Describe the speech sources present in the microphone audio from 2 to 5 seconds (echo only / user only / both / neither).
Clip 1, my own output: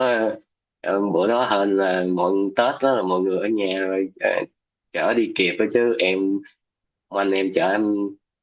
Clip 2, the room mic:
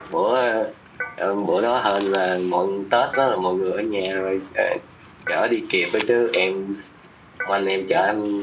echo only